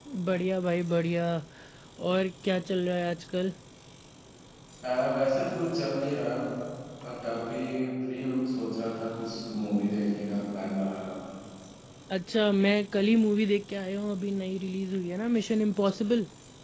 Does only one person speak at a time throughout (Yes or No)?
Yes